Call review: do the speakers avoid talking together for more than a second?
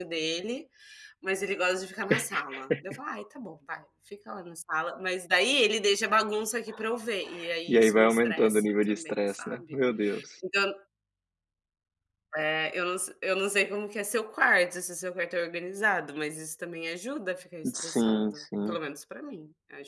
No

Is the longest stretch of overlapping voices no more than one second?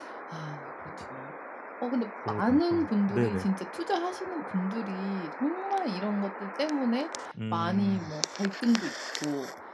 No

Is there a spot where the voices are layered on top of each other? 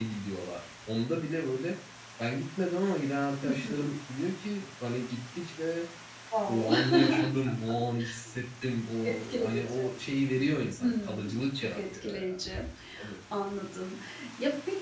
Yes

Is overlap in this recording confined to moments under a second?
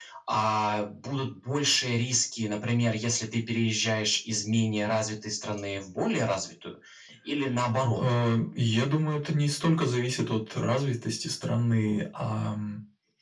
Yes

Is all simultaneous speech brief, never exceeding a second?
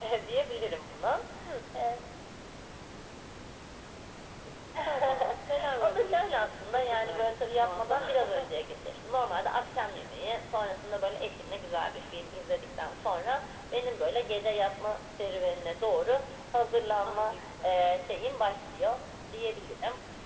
No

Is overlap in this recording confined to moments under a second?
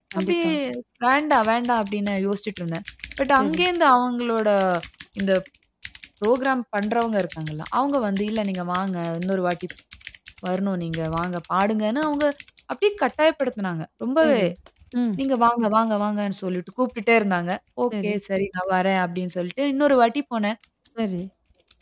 Yes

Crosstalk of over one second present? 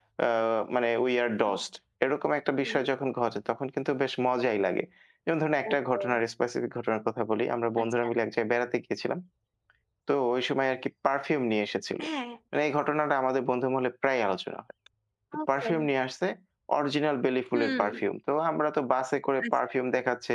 No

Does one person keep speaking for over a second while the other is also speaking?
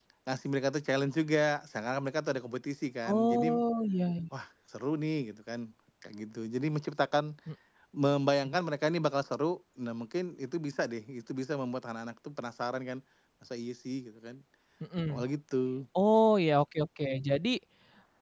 No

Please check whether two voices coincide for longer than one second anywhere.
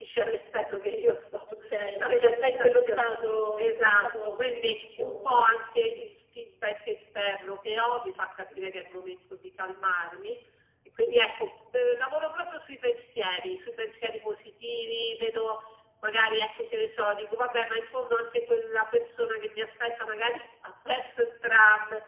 Yes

